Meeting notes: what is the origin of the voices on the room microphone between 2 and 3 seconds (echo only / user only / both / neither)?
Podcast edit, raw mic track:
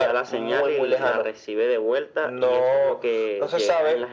echo only